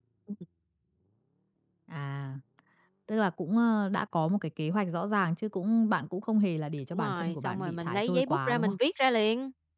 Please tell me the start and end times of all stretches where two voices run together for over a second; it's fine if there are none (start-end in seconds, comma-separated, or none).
6.9-8.7